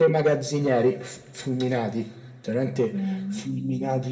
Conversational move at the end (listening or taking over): listening